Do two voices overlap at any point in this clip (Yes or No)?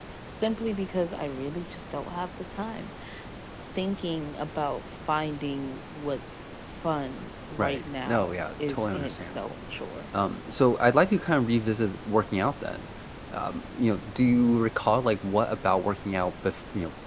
Yes